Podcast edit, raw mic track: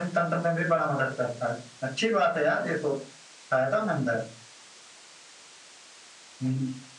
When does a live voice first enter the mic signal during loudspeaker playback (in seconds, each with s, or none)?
none